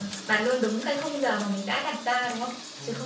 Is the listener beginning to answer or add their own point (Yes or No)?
Yes